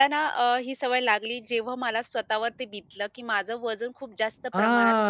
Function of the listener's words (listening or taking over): taking over